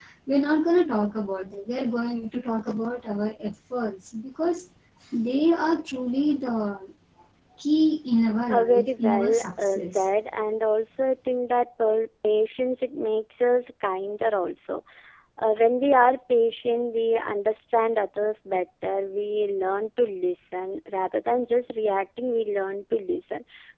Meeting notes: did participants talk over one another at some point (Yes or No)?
Yes